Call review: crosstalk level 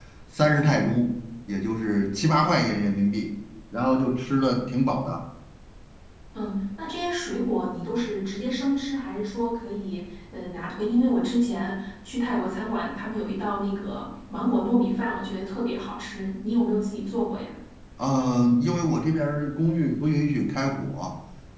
none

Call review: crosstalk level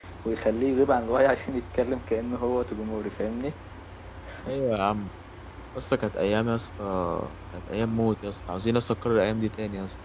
none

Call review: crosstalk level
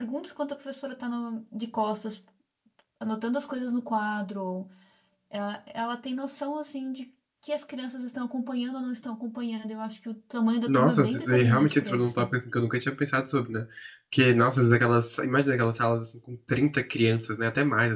present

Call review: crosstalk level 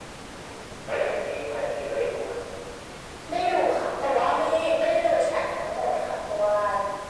none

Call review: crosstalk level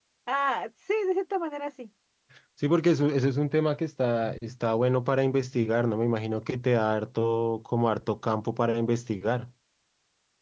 none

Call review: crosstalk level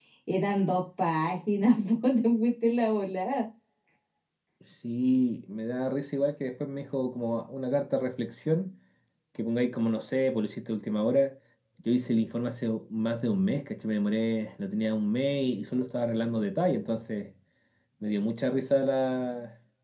none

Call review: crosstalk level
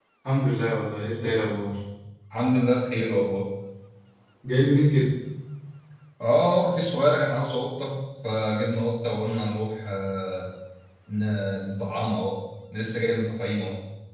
none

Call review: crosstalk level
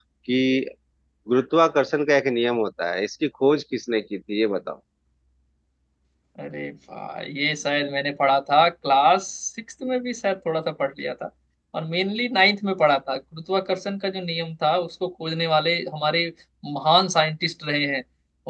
none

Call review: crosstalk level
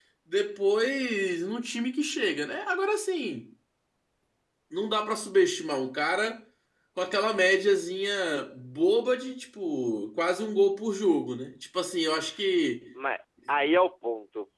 none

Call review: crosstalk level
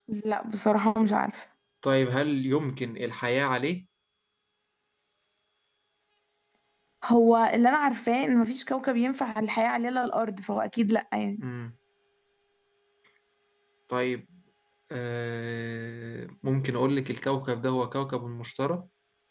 none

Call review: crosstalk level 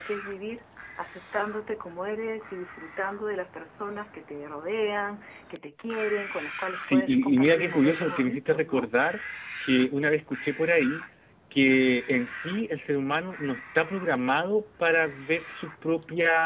present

